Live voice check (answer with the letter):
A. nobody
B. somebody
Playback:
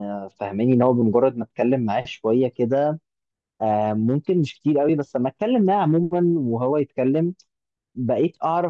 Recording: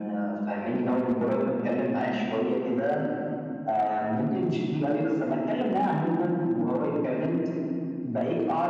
A